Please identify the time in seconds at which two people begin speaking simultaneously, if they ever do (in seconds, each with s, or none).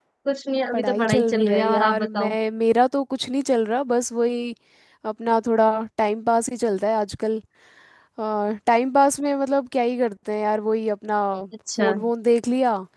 0.7 s